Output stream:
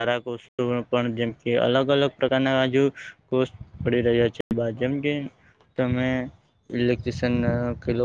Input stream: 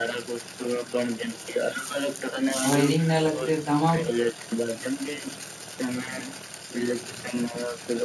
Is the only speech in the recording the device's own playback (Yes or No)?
No